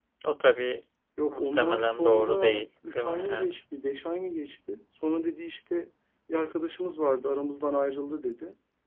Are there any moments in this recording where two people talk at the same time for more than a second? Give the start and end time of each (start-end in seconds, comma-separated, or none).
1.3-3.5